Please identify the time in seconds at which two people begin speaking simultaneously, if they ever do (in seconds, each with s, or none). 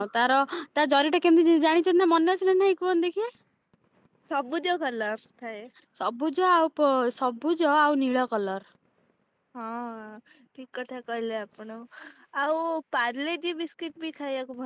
none